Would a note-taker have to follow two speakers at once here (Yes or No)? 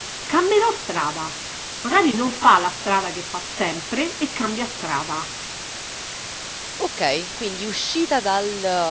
No